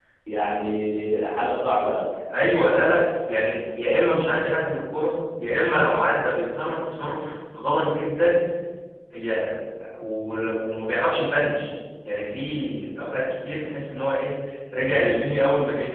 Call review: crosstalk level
none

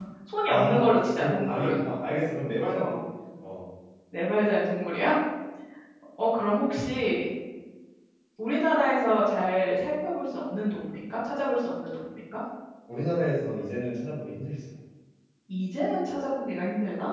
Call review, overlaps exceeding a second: present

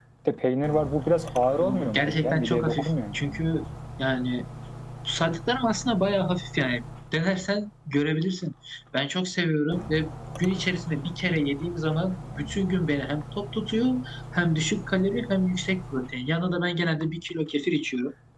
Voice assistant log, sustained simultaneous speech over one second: present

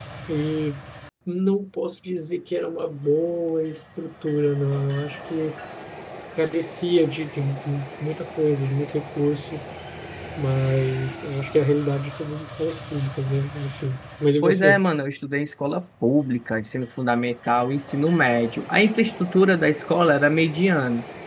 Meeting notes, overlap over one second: none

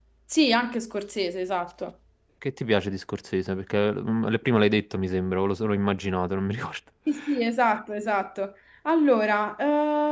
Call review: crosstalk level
none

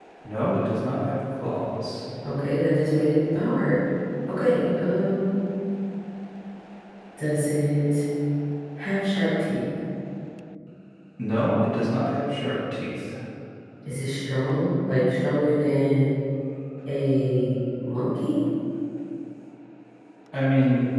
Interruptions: none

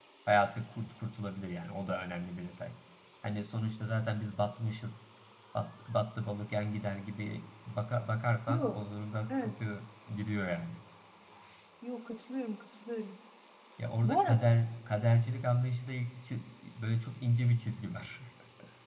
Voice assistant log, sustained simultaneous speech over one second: none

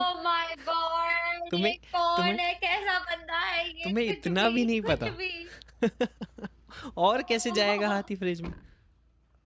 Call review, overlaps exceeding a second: present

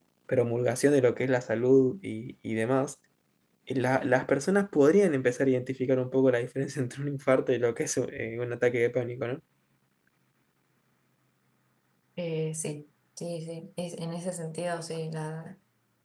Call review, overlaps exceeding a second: none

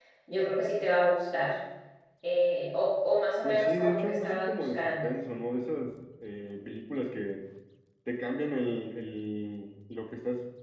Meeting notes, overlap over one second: present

